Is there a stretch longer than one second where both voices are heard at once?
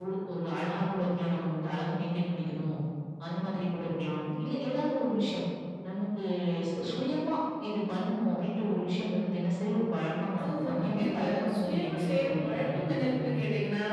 Yes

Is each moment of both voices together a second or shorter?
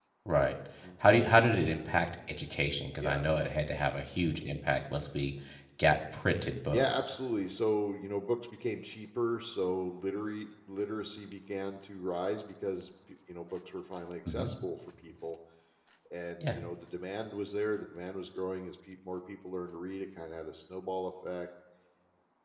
Yes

